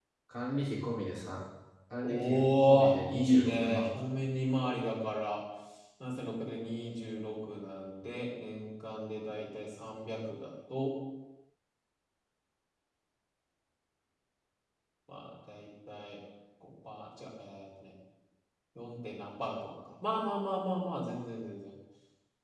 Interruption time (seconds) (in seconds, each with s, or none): 2.0 s